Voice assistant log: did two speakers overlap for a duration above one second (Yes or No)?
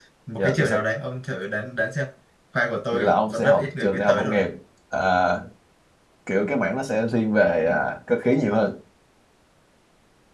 Yes